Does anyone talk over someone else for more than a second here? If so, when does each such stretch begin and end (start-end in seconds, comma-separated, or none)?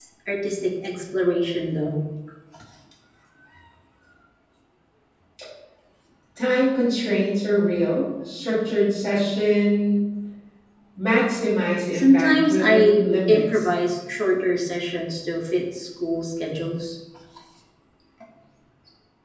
11.9-13.7